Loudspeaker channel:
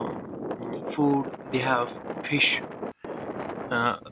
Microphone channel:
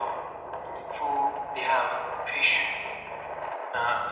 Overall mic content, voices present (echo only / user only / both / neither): echo only